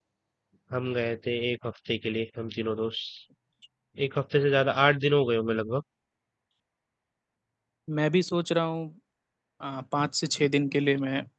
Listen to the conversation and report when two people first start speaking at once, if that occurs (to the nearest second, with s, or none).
none